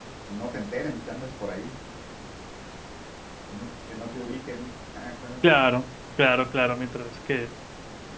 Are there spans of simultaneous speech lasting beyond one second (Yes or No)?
No